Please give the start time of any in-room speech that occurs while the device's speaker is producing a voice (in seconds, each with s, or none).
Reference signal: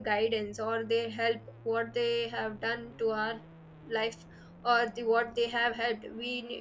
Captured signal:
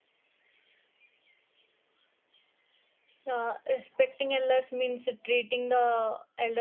3.2 s